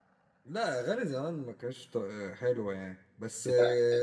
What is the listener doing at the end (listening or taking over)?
listening